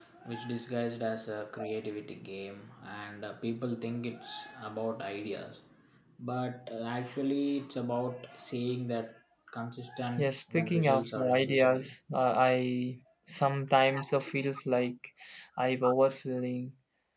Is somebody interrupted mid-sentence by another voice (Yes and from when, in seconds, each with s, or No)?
Yes, from 10.2 s